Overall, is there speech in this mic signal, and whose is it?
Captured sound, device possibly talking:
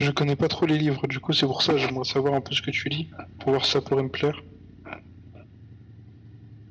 echo only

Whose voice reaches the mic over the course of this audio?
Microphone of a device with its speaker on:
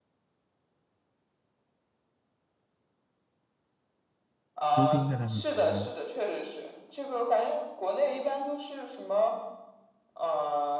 both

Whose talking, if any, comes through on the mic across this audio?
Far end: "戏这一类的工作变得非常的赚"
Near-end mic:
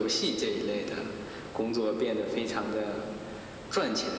echo only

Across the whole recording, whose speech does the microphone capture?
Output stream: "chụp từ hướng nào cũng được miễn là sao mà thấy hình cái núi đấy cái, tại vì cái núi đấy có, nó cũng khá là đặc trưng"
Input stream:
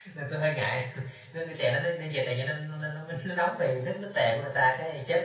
user only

